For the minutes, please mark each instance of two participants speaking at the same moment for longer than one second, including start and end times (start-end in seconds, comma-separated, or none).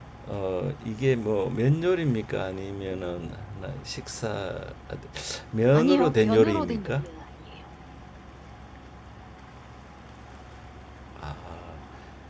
5.7-7.0